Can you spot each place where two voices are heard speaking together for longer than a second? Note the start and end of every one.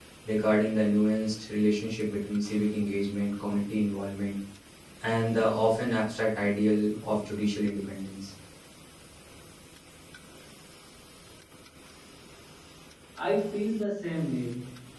none

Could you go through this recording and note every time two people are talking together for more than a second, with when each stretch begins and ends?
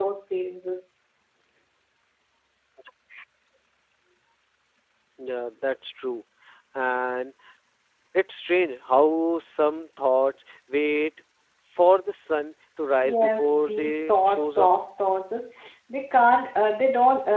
13.0-14.8

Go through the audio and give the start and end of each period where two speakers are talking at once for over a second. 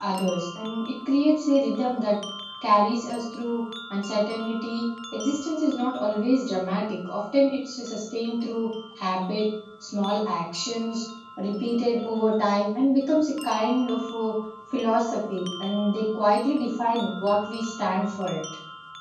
none

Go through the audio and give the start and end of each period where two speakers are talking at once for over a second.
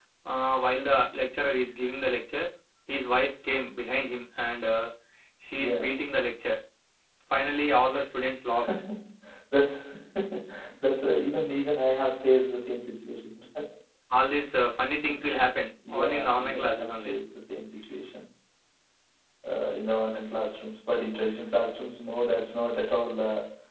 15.9-17.1

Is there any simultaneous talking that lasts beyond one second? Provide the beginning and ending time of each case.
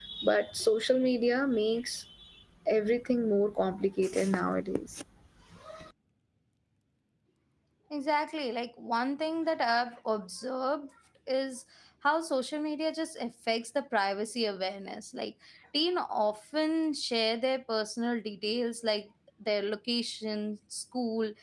none

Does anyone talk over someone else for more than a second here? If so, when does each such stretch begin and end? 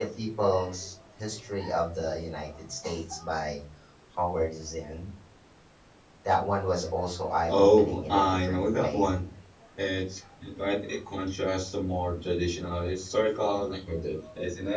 7.5-9.1

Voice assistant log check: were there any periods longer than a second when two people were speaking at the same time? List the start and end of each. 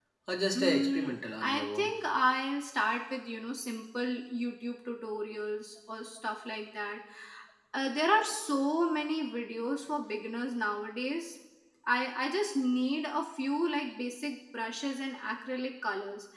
0.6-1.9

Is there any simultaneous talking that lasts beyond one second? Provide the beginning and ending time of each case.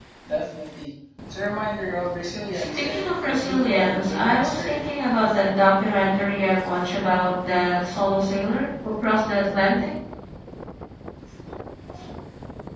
2.5-4.8

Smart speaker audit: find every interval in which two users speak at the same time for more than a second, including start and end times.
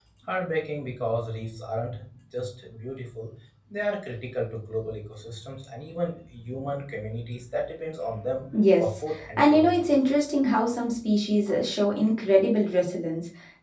8.5-9.9

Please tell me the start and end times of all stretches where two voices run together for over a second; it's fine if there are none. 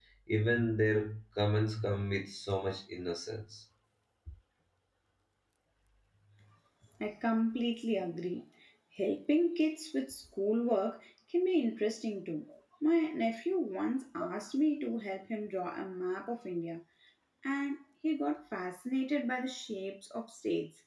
none

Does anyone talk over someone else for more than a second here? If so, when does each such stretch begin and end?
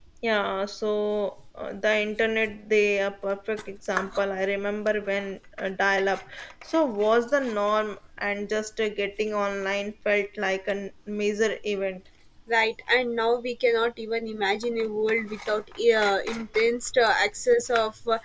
none

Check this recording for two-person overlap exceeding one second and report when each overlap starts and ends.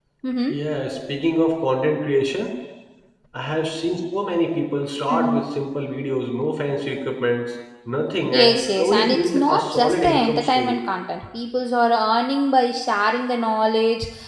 8.3-10.8

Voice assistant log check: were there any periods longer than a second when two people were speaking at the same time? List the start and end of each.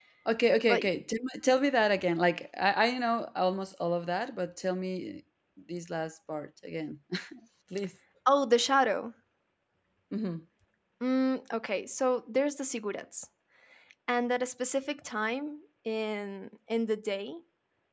none

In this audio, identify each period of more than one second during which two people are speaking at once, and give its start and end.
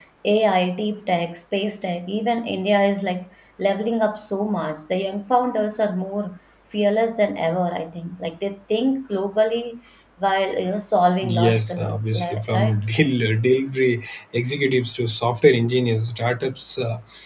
11.2-12.7

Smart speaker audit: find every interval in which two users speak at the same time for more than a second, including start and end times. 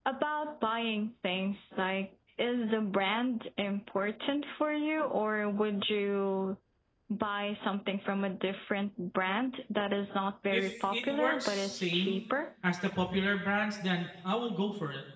10.5-12.2

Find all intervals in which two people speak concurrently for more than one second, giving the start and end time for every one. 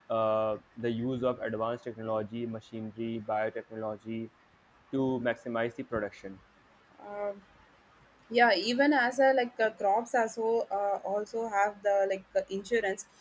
none

